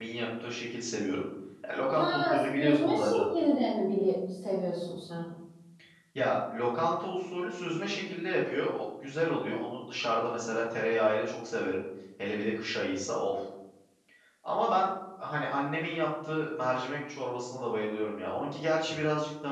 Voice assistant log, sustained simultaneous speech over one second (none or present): present